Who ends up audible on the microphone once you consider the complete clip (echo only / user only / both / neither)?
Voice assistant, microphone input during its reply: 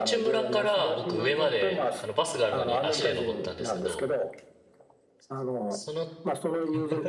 both